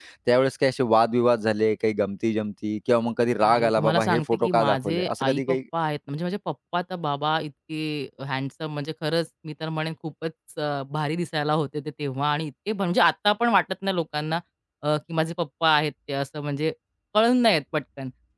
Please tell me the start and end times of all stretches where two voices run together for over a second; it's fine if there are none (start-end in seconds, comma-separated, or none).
3.4-5.6